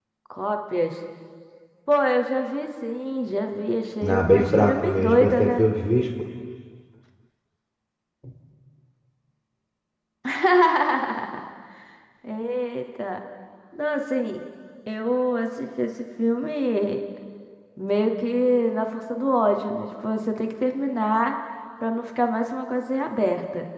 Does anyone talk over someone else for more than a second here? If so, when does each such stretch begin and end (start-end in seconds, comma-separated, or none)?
4.1-5.6